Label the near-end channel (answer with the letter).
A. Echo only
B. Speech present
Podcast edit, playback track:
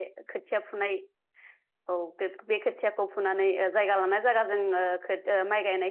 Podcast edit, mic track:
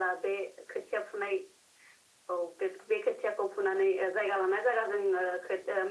A